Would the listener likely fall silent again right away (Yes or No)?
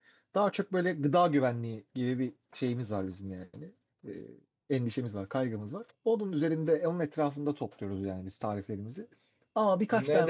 No